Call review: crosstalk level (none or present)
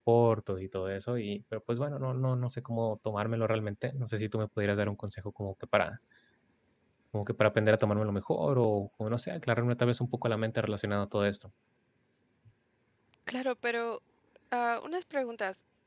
none